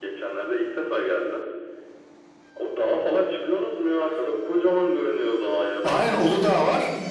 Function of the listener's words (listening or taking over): taking over